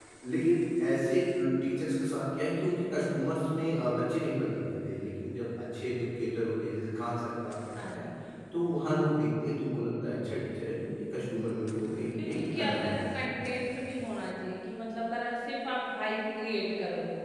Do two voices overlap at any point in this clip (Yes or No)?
Yes